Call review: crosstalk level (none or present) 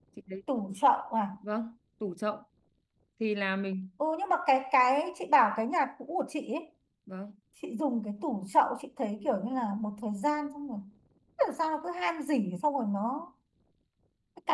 none